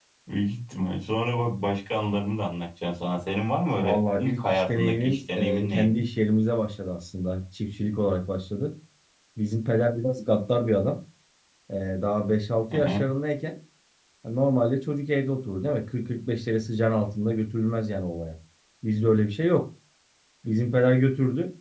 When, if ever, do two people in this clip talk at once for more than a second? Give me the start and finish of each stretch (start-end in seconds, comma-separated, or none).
3.8-6.0